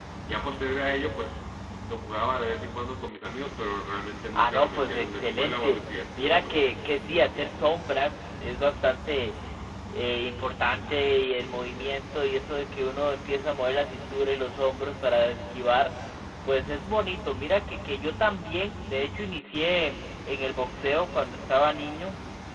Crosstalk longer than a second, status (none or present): present